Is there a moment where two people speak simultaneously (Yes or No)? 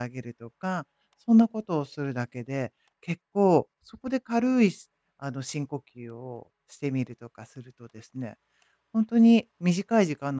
No